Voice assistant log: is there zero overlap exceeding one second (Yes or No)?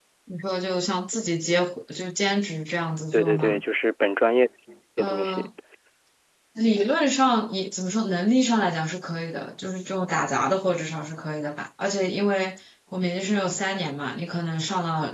Yes